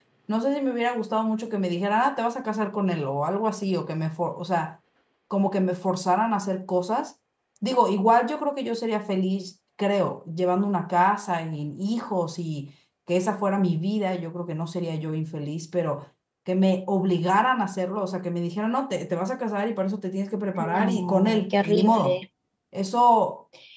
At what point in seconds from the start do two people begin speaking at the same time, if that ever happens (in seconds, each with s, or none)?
20.6 s